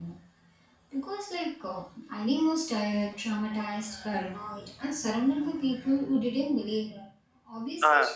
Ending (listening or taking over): listening